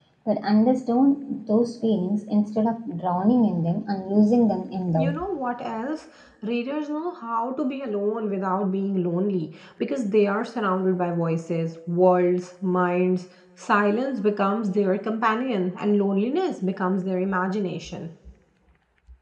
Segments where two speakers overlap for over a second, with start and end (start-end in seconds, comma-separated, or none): none